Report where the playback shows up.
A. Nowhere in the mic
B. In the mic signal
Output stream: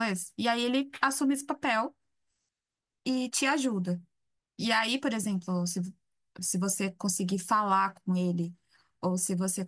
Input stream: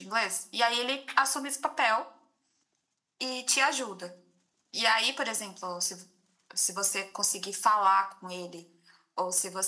B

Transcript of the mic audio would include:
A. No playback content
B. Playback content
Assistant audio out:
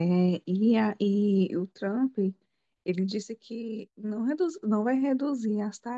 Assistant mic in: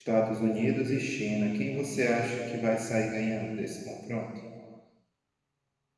A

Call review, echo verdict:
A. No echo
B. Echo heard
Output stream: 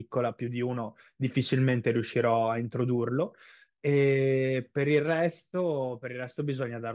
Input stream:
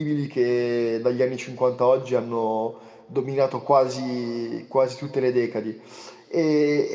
A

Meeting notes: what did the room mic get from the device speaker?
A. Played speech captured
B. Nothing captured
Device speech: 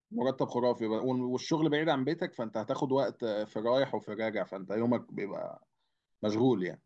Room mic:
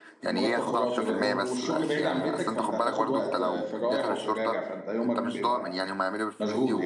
A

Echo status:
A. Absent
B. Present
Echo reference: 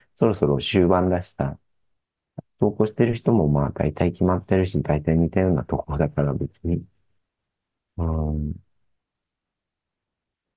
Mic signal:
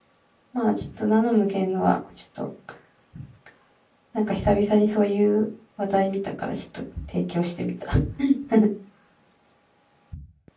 A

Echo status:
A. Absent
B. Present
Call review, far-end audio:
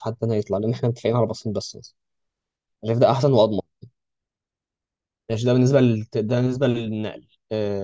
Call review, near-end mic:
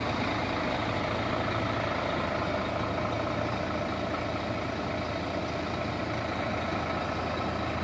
A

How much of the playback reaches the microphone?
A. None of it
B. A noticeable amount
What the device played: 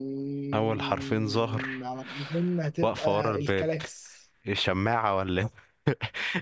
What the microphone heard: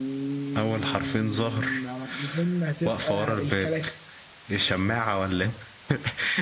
B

